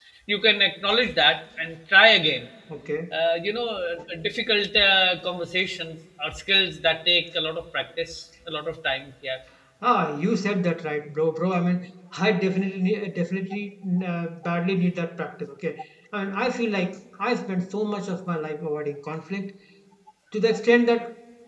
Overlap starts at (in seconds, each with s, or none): none